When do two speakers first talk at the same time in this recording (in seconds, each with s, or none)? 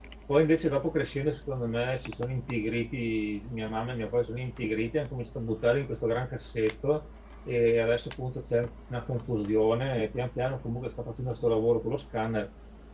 none